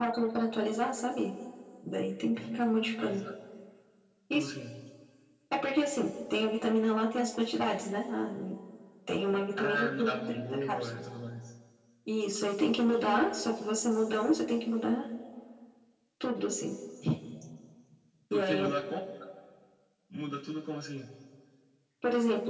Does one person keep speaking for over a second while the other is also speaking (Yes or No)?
Yes